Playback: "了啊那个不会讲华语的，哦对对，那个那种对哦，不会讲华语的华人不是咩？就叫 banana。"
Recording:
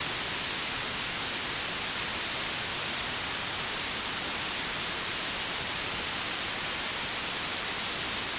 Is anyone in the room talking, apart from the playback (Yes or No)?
No